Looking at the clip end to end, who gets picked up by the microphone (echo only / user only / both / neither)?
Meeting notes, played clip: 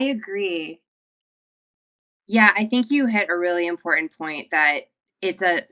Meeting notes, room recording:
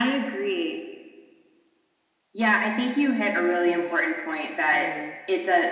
both